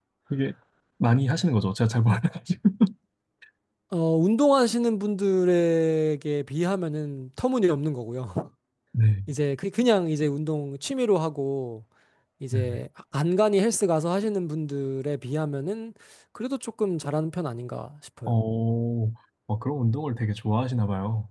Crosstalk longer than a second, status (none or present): none